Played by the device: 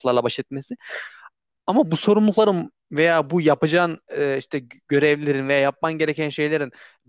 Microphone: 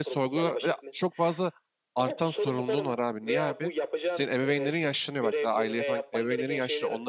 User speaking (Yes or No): Yes